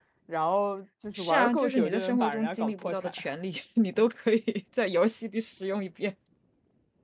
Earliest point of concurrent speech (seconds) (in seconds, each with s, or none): 1.1 s